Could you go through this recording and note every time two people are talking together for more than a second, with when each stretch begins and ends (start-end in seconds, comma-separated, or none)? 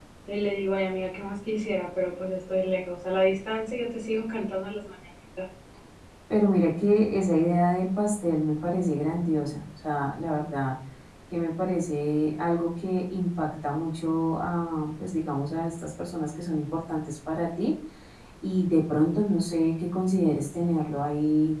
none